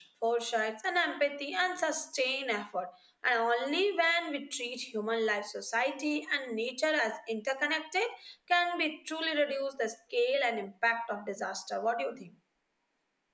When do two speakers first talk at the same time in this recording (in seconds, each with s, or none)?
none